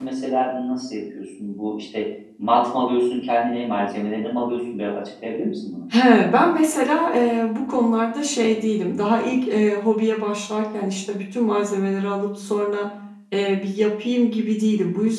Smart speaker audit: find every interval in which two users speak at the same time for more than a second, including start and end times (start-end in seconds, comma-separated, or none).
none